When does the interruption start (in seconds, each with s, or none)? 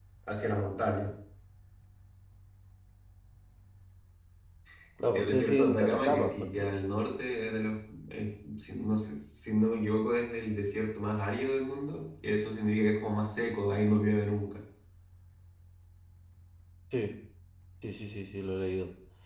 5.1 s